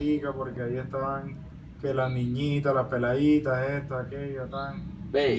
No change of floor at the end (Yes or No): No